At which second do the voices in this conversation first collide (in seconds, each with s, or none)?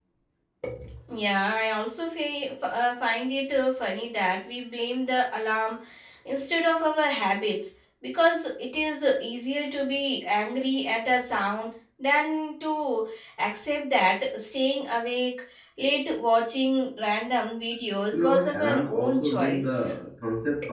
18.1 s